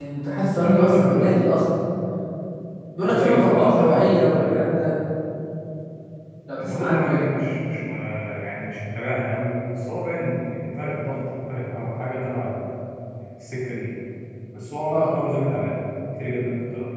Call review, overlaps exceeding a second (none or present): present